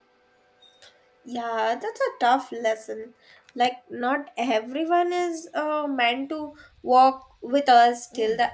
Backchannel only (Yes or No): No